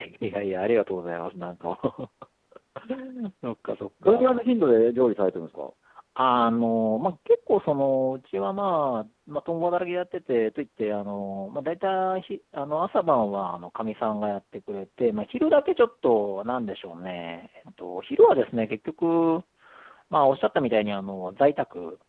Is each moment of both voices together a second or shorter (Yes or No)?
Yes